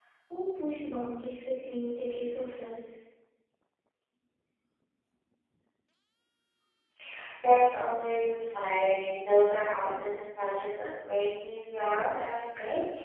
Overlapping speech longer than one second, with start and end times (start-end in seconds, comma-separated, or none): none